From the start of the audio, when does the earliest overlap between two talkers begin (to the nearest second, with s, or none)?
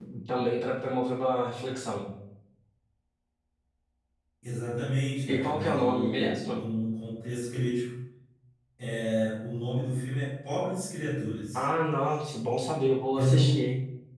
5 s